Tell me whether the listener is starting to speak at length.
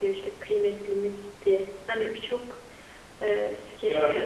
Yes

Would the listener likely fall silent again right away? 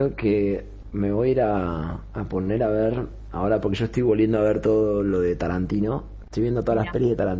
Yes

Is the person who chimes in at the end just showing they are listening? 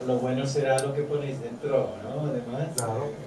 No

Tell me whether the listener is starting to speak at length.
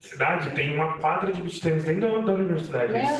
No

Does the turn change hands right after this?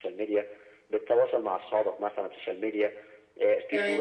No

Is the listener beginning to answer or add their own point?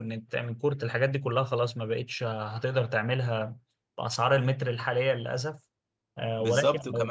Yes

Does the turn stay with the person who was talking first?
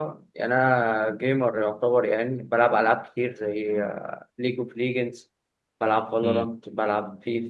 Yes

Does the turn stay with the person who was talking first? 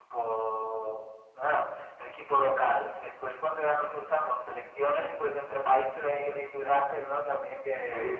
No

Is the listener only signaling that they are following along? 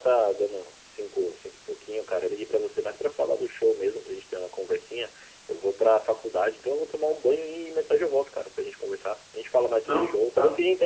Yes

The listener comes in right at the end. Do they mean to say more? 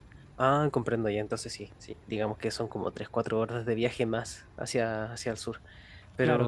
Yes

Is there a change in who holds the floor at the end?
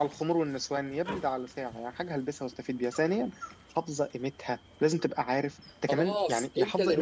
Yes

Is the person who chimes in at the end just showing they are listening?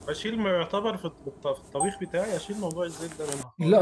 No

